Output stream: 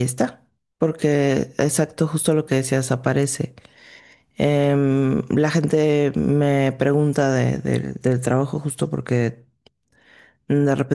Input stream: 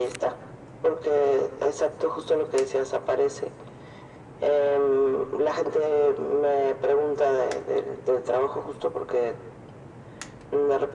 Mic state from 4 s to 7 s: echo only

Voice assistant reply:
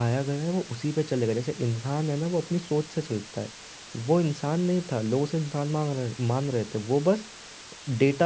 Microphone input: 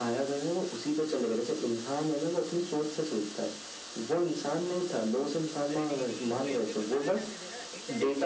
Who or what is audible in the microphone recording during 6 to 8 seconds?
both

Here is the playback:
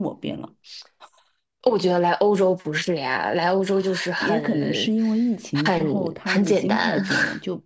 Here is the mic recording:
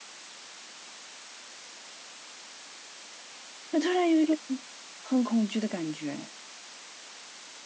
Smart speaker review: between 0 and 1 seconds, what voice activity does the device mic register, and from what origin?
neither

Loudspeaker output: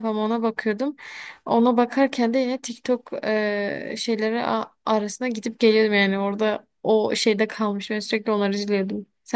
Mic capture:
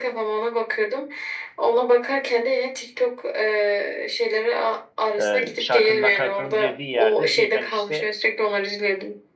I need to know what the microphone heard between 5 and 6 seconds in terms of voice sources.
both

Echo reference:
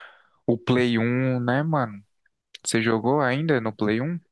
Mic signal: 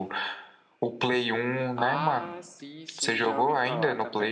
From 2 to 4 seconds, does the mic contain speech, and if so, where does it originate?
both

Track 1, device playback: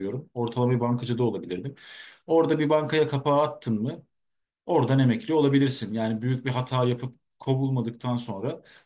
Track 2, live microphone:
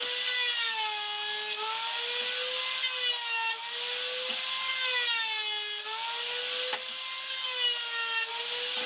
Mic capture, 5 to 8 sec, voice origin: neither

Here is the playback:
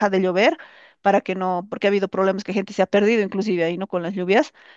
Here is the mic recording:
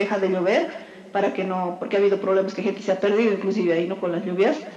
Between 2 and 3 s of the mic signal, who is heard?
echo only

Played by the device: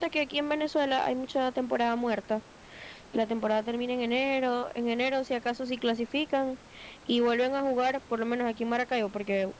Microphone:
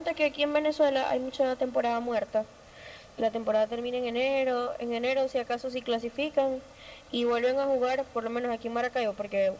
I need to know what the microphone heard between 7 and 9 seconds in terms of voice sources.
echo only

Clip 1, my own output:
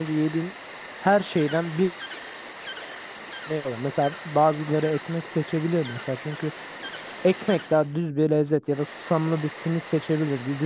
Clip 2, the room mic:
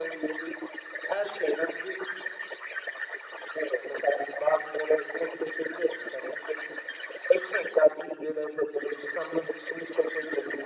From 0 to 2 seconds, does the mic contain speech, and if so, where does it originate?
echo only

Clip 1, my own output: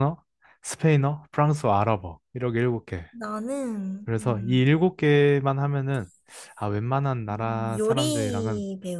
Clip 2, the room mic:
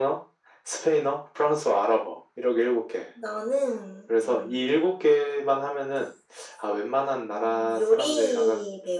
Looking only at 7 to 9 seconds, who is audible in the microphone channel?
echo only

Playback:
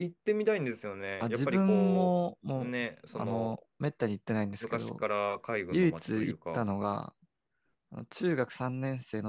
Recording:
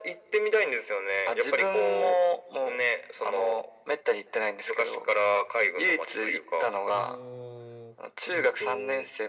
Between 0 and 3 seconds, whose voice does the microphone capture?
echo only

